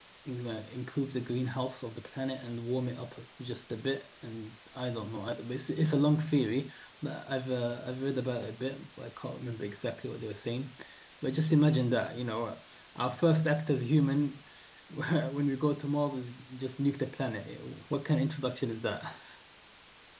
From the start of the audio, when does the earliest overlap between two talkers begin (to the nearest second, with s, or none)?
none